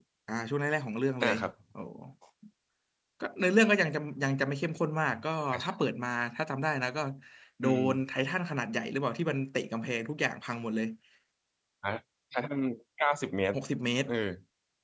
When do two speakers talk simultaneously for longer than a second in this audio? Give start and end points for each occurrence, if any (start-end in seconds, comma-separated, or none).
none